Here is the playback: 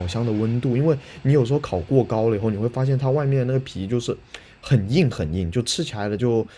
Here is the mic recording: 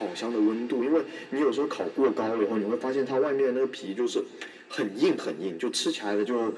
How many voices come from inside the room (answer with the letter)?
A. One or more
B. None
B